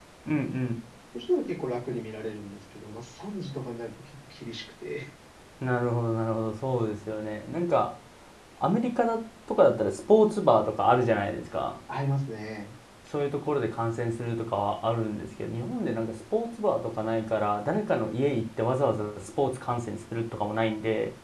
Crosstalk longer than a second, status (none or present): none